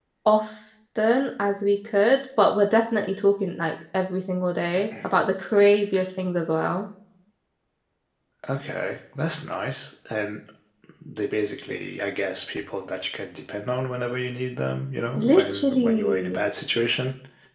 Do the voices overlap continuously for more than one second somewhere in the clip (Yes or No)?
Yes